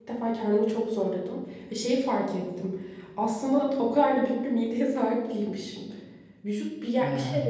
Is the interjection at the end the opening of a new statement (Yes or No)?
No